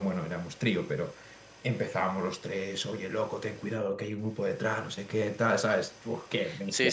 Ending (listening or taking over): taking over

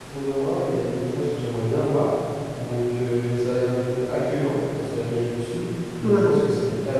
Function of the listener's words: listening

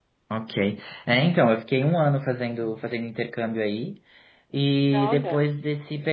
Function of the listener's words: listening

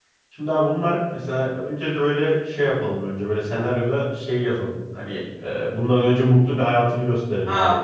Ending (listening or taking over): taking over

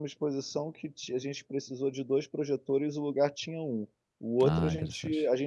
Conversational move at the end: listening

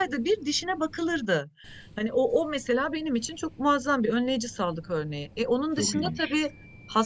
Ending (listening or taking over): listening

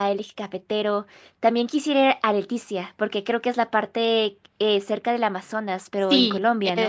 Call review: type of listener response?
taking over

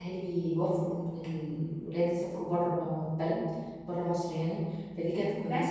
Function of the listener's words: listening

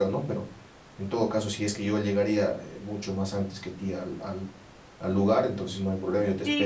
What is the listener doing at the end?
taking over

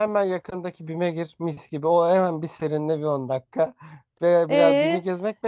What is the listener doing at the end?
taking over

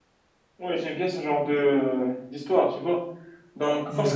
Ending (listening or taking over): listening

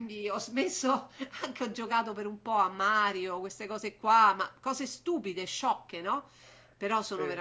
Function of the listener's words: listening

